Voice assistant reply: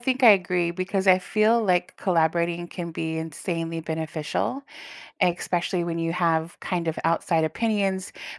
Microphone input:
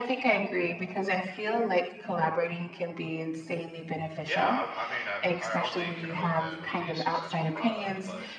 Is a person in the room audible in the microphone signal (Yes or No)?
Yes